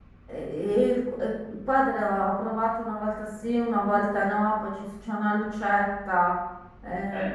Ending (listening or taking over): listening